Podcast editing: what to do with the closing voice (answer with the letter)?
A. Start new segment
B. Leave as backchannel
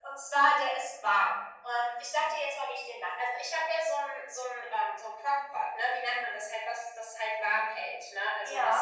B